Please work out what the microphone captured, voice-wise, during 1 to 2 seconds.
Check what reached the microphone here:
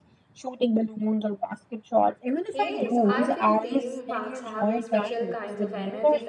echo only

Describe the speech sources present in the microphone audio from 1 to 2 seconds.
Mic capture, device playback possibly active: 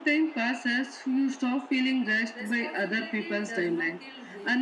echo only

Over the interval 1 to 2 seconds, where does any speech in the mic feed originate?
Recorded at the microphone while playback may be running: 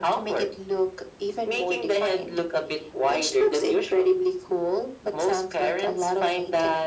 echo only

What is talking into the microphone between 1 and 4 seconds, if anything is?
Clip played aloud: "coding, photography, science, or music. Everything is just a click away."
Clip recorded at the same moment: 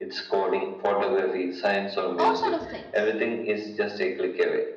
both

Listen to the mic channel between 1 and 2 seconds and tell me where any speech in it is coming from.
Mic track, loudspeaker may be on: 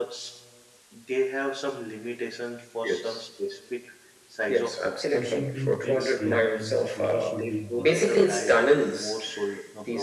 echo only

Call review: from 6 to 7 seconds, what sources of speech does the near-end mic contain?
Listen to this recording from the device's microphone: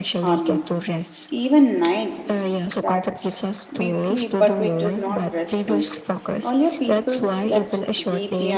both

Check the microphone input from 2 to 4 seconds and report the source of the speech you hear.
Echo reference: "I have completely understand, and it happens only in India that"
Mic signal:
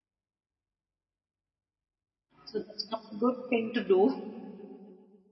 user only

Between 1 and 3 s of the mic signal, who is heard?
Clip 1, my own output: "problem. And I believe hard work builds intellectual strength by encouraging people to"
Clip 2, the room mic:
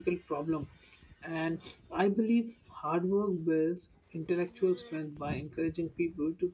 echo only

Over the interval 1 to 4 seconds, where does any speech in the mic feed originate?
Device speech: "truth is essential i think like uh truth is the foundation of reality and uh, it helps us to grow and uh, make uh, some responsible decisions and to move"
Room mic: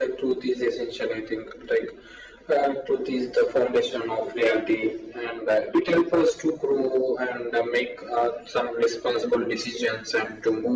echo only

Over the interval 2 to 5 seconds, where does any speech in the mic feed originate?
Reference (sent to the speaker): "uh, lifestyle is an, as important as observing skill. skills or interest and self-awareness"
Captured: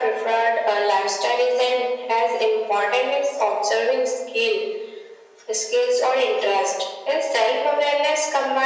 echo only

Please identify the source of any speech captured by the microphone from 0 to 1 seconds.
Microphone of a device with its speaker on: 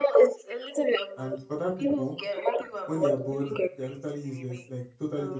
echo only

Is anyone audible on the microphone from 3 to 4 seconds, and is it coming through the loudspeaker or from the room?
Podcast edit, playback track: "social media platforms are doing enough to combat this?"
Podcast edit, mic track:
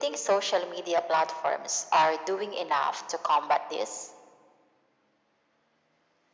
echo only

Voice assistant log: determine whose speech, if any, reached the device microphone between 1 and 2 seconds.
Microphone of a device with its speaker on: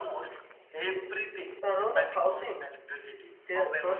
both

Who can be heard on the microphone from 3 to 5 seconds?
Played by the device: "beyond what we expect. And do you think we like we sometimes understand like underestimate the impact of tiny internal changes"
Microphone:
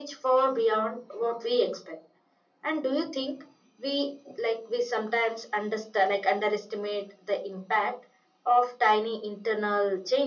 echo only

